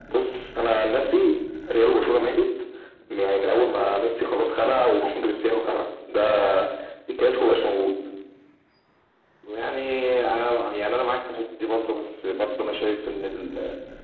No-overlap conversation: Yes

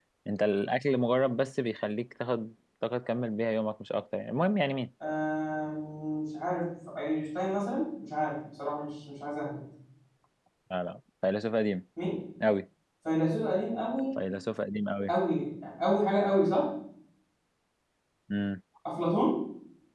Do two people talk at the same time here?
No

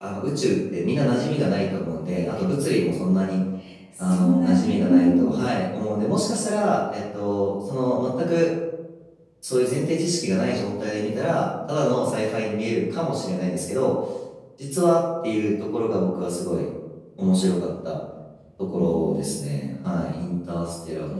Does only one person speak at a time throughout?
No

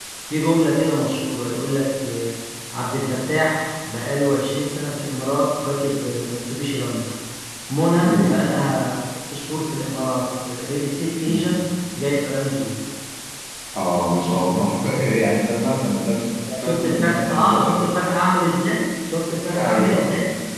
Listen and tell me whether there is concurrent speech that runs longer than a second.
Yes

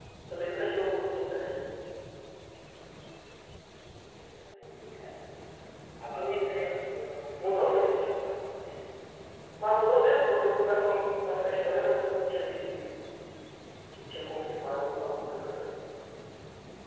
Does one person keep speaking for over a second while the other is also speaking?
No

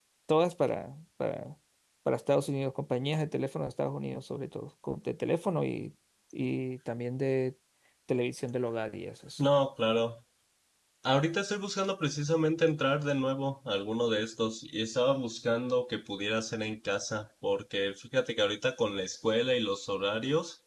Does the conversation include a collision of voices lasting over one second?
No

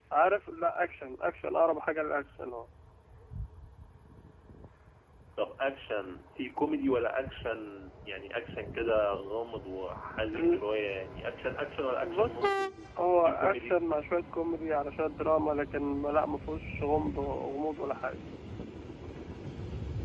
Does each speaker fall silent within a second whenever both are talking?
Yes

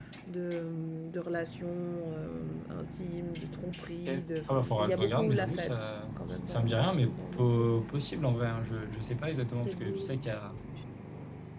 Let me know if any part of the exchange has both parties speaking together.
Yes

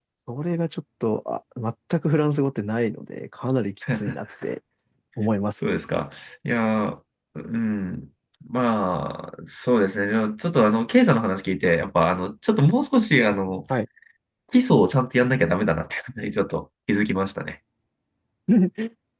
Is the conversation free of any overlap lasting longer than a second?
Yes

